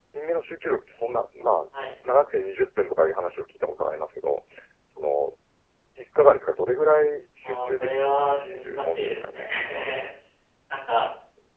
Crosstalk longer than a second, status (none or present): present